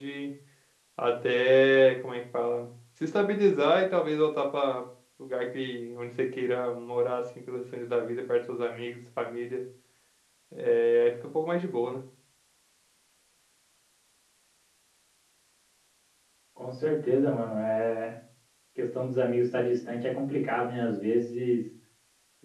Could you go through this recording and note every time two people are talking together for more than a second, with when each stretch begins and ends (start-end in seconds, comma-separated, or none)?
none